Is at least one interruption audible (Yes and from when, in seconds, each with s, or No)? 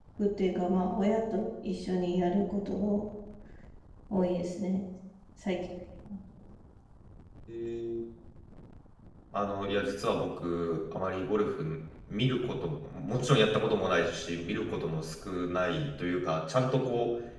No